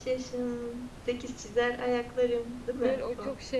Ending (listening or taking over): taking over